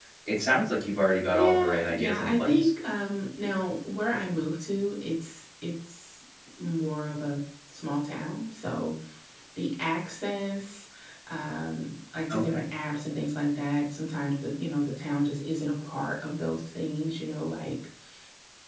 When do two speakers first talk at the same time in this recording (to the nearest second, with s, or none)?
1 s